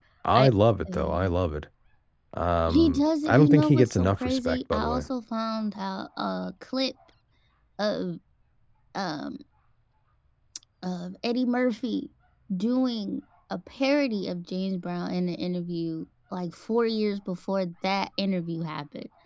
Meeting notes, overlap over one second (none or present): present